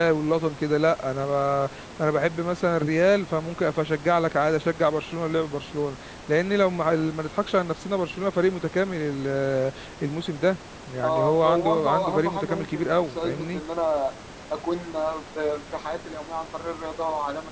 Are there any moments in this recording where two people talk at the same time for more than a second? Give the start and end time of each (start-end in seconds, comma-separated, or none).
11.0-13.6